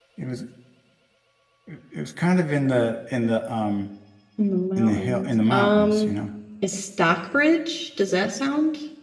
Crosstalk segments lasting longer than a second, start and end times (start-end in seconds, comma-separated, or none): 4.8-6.2